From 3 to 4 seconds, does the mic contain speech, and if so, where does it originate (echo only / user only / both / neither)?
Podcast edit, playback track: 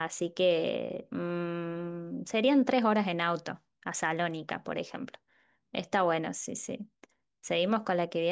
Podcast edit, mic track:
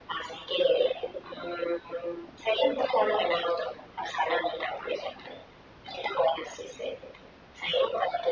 echo only